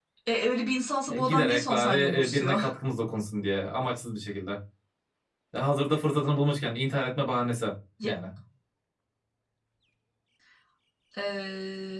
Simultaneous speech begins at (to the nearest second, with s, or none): 1 s